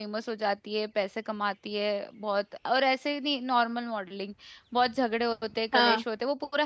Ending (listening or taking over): listening